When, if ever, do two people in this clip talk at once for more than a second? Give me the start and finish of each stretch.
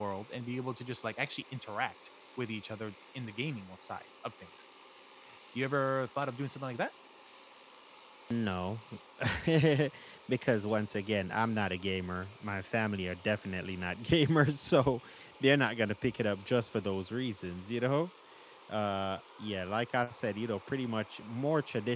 none

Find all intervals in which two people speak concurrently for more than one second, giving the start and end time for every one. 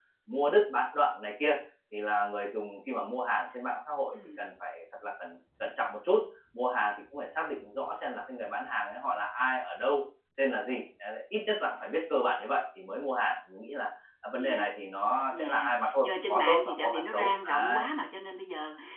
15.4-17.8

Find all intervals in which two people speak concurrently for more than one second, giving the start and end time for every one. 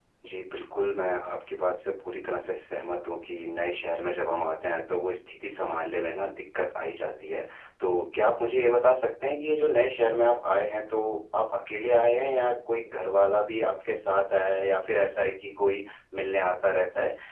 none

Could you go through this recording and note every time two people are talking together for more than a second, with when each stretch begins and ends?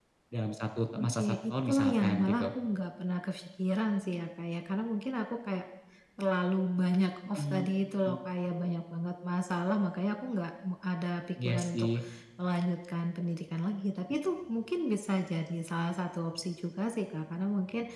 1.0-2.5

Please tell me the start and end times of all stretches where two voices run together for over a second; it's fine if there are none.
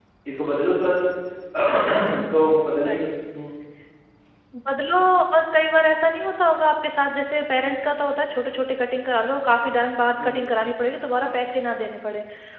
none

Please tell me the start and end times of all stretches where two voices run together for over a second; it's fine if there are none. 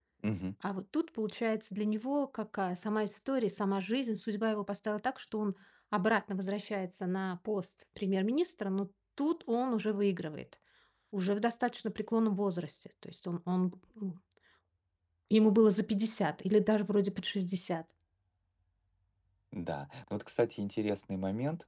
none

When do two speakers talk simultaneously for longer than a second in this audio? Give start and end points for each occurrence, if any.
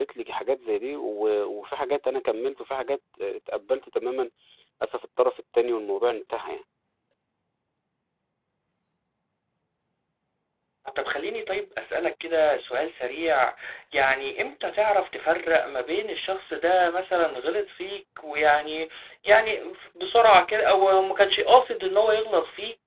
none

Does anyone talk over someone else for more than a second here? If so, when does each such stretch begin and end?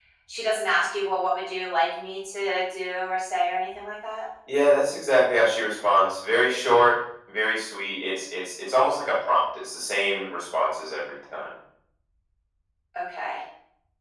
none

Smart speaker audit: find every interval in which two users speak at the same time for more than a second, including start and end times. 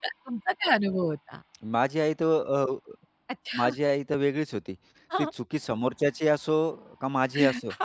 none

